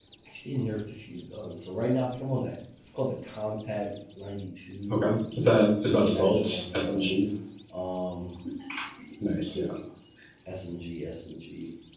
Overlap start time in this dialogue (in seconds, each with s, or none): 5.8 s